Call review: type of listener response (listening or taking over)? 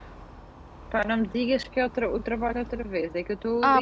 taking over